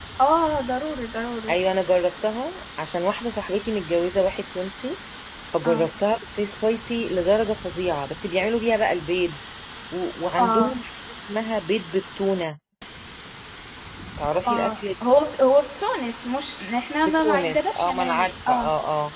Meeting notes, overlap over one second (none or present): present